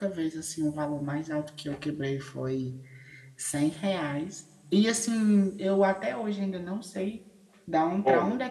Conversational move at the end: listening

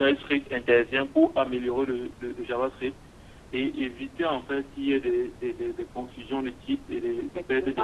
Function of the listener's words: taking over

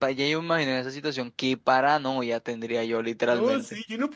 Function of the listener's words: taking over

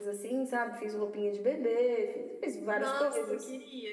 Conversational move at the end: taking over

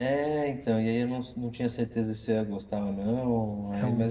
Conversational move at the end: listening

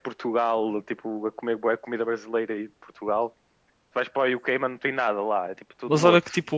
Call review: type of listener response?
taking over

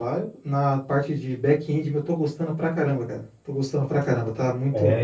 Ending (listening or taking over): taking over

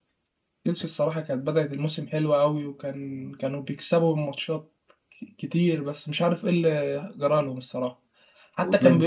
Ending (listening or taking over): listening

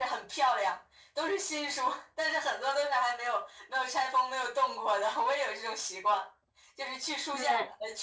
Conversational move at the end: listening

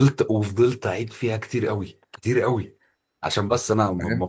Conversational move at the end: taking over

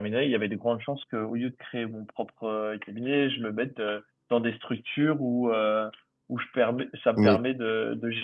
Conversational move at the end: listening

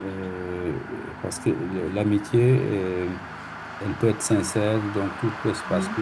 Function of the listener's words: listening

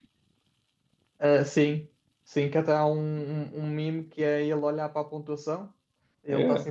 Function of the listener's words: listening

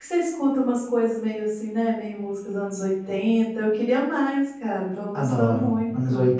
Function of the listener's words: taking over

